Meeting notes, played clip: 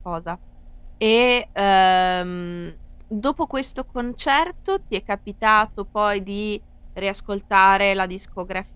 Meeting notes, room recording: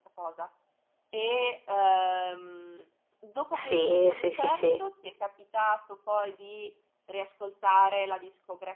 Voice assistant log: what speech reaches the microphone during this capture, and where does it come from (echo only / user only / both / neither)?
both